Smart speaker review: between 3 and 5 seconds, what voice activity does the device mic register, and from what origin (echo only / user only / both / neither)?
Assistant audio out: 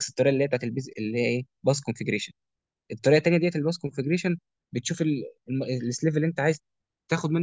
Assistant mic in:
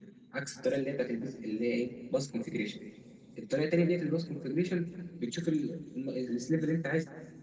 echo only